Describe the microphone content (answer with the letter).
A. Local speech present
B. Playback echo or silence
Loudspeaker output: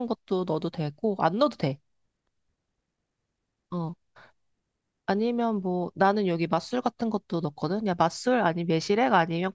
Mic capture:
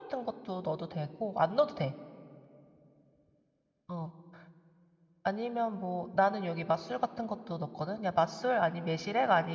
B